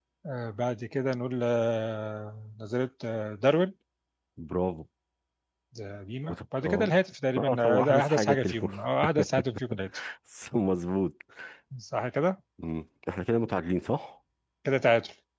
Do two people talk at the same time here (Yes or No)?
Yes